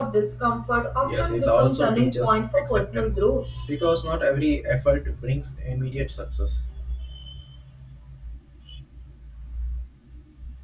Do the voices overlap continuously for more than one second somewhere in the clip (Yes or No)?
Yes